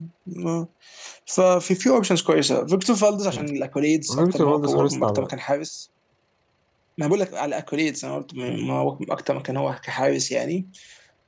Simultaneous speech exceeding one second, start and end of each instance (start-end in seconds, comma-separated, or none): 4.1-5.3